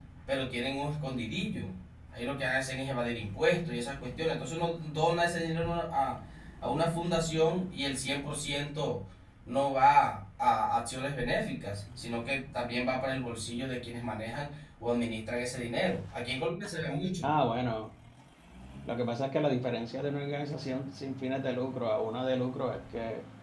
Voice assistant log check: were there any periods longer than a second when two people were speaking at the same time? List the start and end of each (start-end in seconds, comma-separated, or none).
none